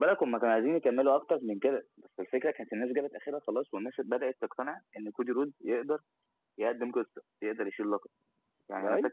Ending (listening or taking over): listening